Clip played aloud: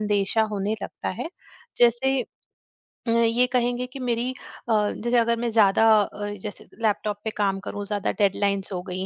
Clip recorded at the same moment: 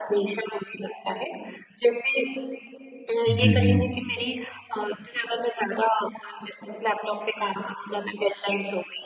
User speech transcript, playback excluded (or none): जी, जी।